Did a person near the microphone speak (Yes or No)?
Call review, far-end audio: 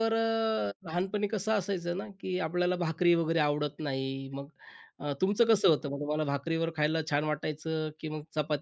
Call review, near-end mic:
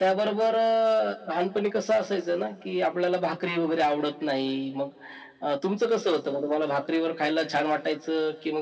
No